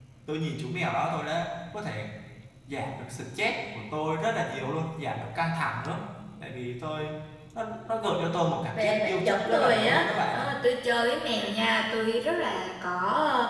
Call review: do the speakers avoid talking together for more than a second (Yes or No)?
No